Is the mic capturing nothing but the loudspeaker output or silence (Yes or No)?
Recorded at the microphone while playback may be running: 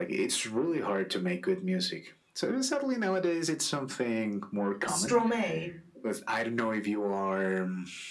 No